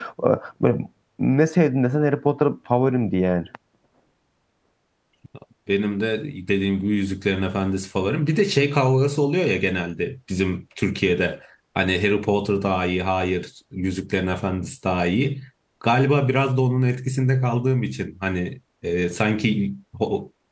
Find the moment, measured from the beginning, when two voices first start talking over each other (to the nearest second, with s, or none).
none